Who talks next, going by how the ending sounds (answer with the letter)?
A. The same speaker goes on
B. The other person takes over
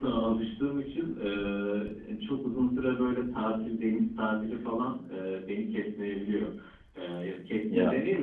A